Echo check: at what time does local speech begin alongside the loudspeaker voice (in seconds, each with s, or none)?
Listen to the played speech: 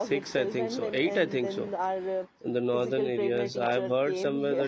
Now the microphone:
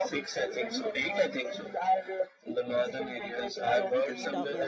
3.7 s